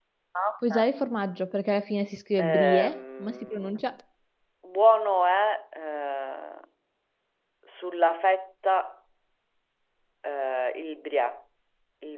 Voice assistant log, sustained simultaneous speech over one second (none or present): present